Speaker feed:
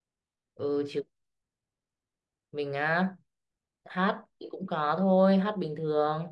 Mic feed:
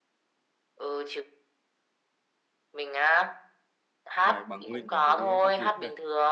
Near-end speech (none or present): present